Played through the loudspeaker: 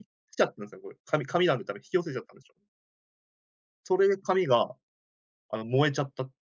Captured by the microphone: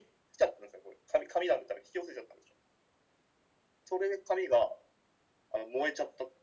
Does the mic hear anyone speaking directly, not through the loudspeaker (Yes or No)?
No